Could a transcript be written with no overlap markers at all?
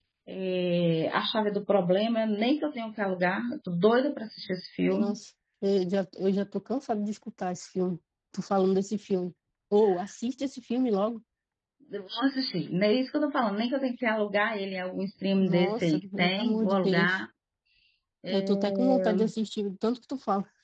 No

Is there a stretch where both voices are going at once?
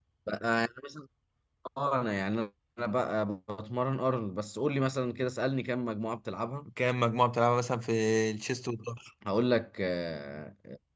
No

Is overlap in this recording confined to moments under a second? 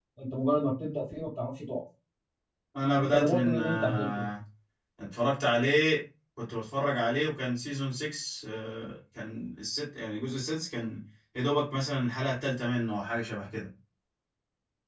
No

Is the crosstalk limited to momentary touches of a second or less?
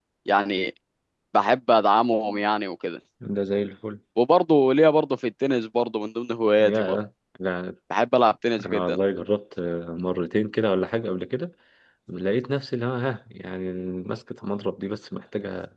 Yes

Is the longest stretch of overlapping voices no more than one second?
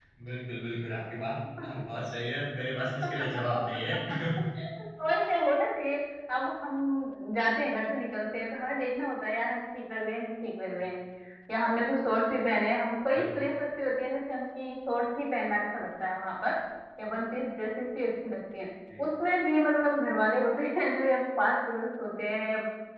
Yes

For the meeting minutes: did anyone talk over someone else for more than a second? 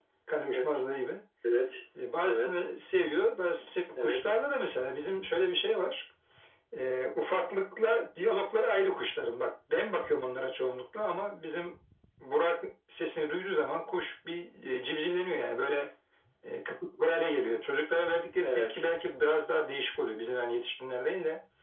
No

